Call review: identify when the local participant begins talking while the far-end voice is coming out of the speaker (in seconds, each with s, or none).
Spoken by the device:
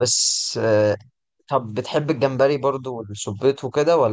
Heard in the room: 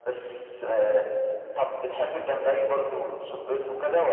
none